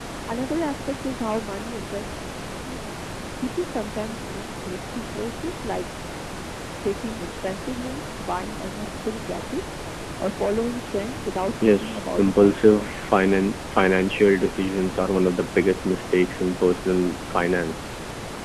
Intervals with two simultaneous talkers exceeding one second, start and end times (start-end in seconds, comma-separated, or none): 11.6-13.1